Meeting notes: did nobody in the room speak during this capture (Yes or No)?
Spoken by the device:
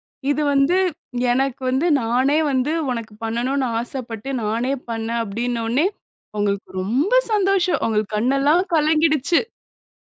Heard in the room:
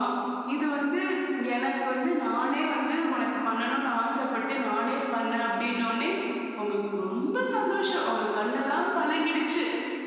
Yes